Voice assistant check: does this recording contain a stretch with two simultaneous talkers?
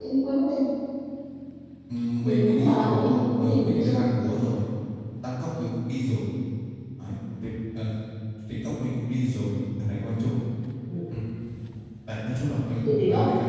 Yes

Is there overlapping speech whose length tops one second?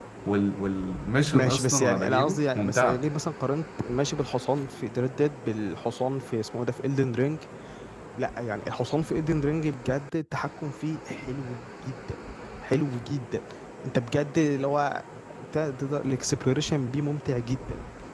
Yes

